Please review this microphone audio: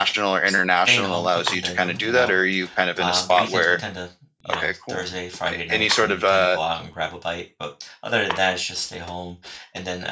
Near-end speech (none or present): present